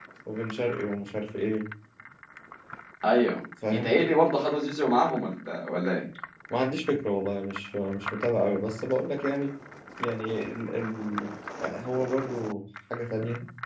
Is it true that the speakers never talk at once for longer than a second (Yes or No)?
Yes